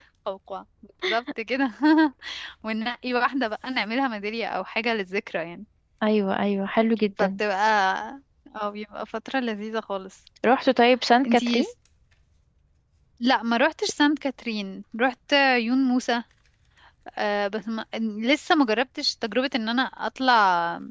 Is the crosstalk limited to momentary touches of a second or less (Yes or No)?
Yes